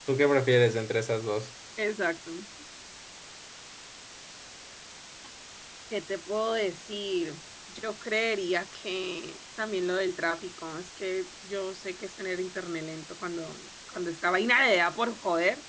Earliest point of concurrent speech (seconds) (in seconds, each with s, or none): none